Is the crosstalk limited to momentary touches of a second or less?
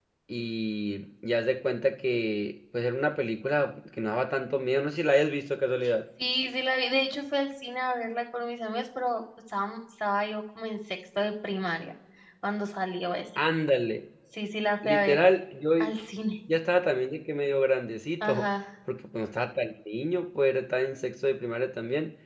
Yes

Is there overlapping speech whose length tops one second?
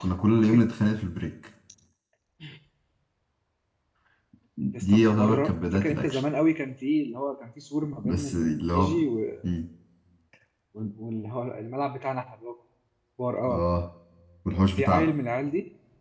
Yes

